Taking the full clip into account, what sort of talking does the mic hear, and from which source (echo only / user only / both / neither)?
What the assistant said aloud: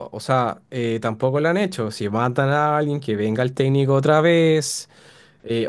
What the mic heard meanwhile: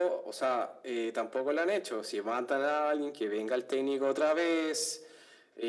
echo only